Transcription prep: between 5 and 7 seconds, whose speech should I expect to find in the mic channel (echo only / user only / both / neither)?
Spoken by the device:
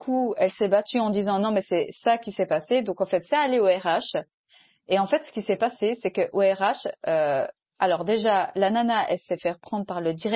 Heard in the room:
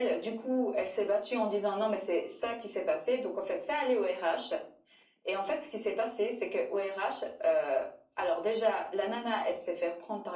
echo only